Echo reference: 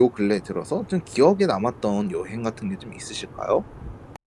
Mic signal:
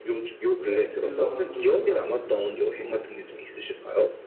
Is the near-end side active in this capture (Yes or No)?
Yes